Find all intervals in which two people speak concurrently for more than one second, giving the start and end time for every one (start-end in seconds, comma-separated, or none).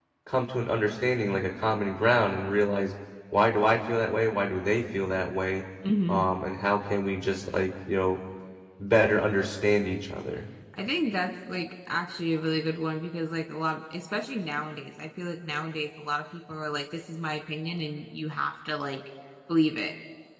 none